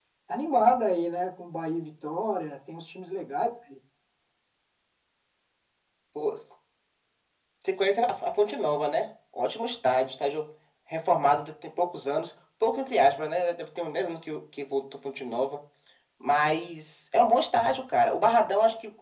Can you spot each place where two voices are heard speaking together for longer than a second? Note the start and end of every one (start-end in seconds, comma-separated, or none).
none